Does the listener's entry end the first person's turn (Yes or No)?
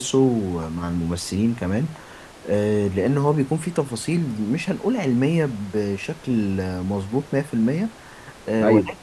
No